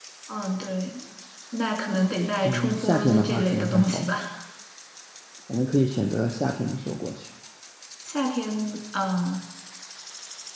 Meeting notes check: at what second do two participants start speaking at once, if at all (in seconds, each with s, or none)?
2.4 s